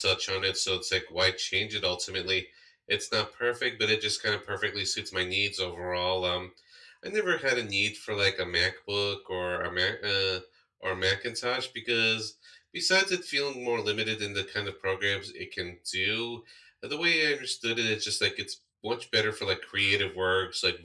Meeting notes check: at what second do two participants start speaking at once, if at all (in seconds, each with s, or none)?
none